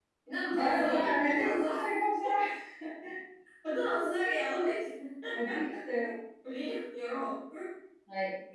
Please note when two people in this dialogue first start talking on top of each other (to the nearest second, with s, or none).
1 s